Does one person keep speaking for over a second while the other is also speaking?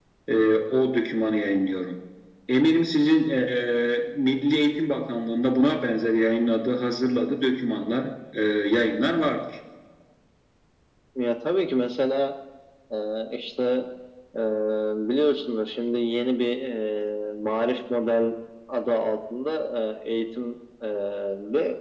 No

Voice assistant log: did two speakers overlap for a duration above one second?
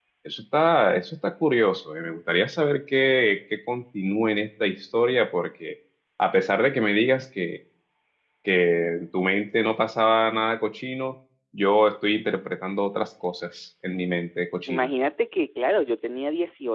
No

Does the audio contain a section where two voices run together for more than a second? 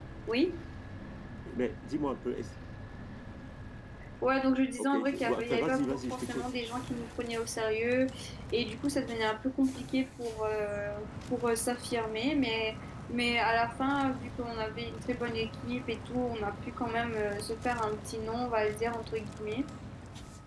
Yes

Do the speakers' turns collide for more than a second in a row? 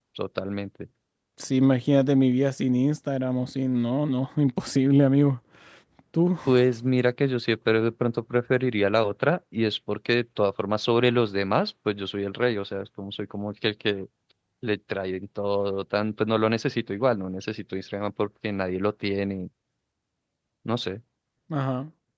No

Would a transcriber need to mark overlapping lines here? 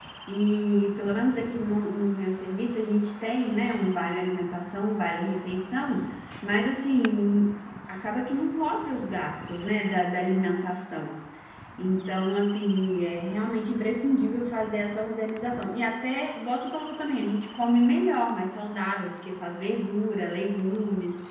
No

